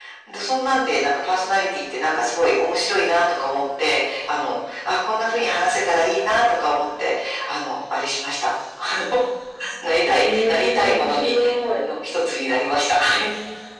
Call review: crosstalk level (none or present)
present